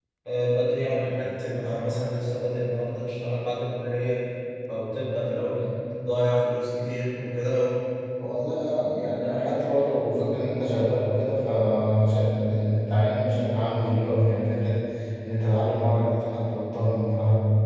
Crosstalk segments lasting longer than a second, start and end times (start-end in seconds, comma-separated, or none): none